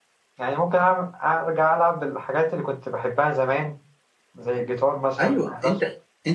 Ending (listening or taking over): taking over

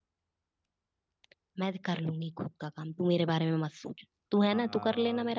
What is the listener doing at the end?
taking over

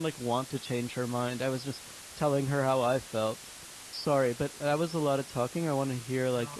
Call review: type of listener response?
taking over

